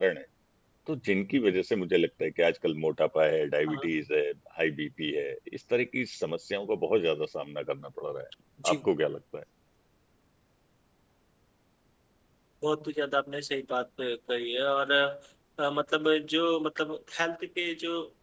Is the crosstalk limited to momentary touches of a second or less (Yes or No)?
Yes